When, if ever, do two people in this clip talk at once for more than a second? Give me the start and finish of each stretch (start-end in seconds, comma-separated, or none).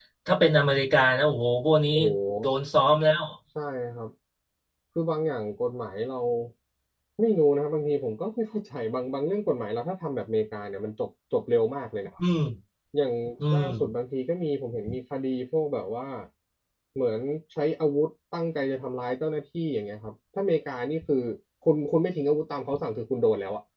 none